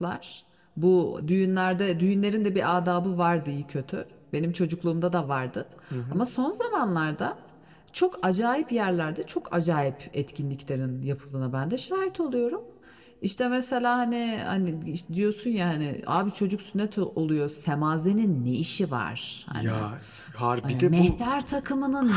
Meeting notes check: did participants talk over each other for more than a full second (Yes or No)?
No